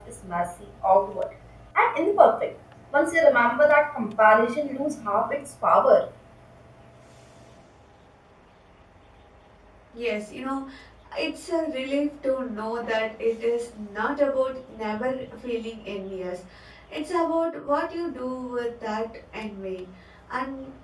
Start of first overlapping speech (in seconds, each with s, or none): none